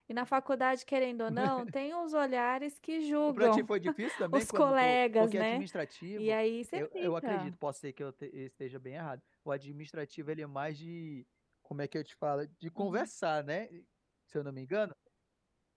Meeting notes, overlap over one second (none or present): present